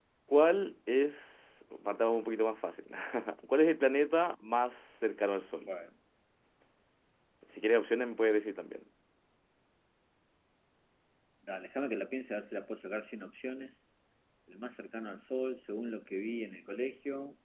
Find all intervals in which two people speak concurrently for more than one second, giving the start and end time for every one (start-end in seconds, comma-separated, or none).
none